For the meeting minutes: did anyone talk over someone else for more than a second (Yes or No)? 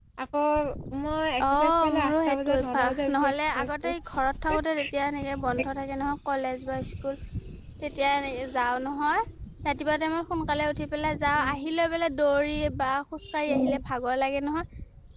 Yes